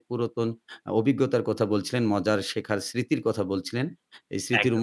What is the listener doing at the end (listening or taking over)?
listening